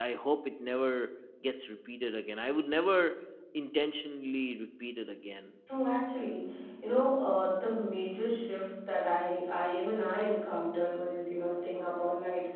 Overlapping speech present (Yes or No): No